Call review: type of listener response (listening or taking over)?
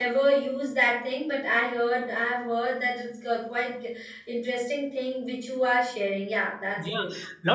taking over